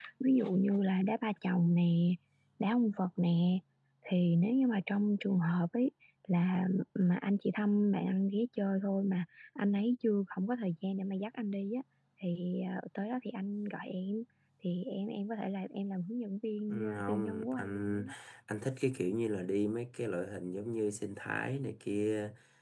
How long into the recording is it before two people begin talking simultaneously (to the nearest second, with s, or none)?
17 s